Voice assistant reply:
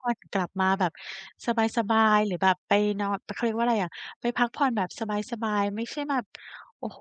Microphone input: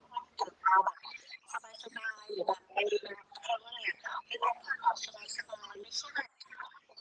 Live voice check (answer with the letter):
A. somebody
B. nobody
B